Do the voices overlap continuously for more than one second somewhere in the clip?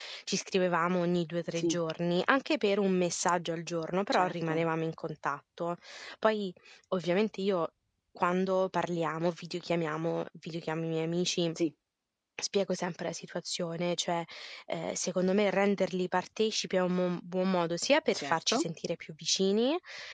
No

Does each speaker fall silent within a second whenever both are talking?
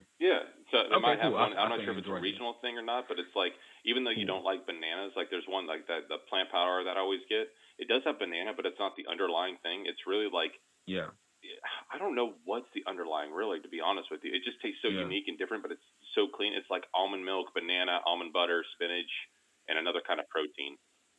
No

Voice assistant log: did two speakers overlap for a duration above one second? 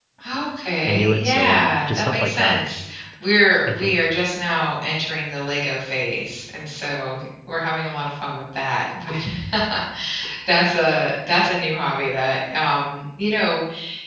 Yes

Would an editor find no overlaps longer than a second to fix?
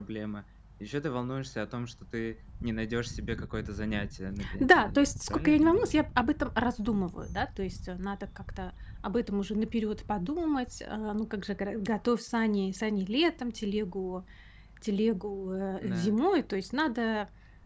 No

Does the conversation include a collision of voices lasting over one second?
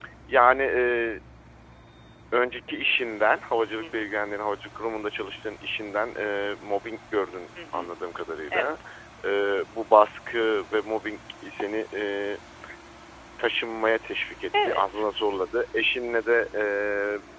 No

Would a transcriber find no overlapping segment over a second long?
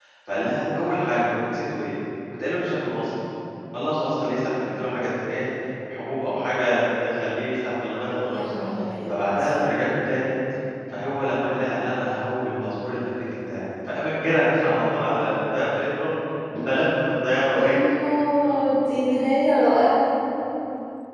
Yes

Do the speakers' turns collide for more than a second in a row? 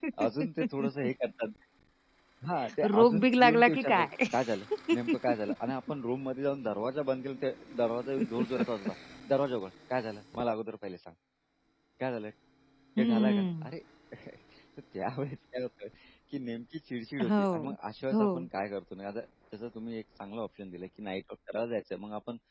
Yes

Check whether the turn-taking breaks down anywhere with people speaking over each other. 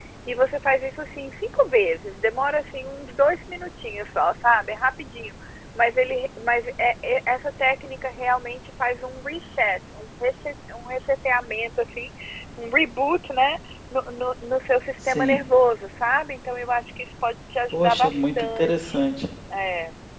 Yes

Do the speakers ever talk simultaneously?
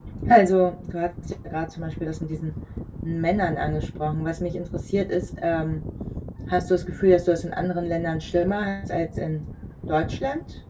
No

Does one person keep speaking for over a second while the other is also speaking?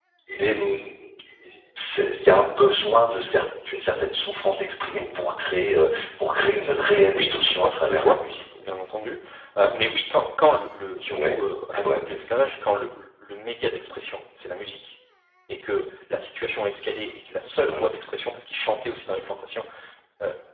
Yes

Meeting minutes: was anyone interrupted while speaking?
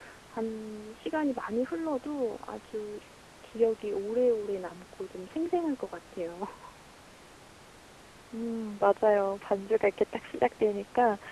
No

